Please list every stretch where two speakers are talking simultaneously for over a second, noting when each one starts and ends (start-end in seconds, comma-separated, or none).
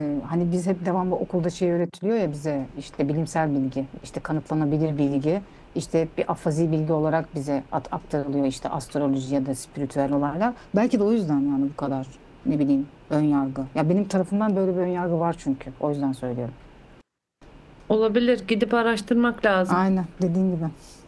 none